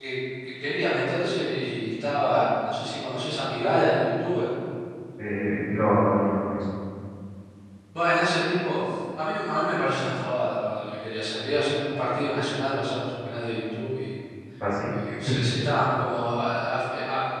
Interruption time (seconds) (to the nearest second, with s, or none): none